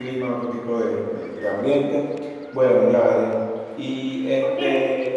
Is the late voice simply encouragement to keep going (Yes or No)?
No